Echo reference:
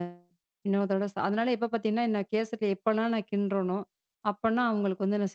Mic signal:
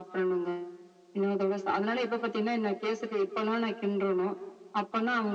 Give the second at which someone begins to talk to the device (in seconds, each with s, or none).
none